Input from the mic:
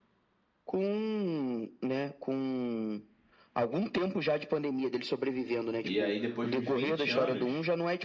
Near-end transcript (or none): E aí, depois de uns 20 anos,